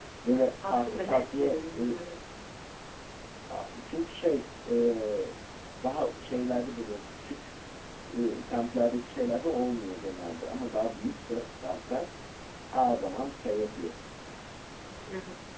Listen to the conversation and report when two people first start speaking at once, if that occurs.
1 s

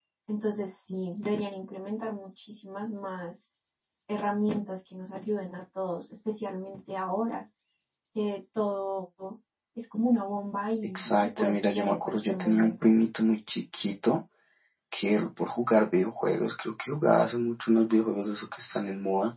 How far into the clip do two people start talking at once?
11 s

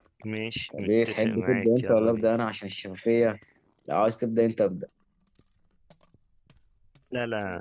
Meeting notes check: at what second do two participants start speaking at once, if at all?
1 s

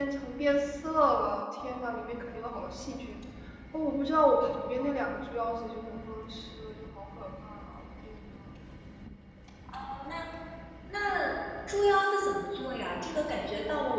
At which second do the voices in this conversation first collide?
none

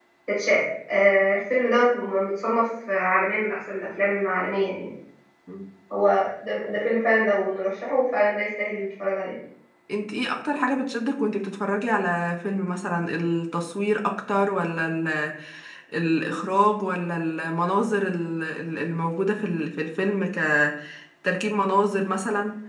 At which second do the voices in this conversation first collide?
none

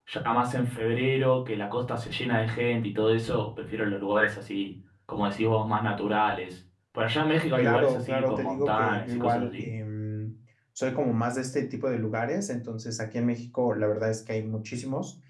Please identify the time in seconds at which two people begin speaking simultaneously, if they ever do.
8 s

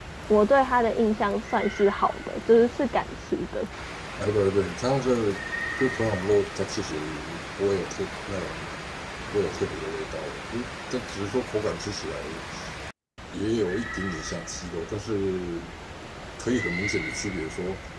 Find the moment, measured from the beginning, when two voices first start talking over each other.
none

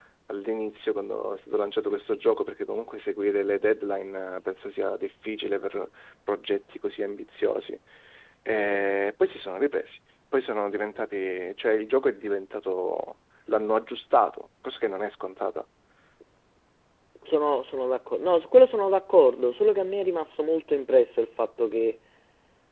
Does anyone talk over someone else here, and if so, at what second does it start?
none

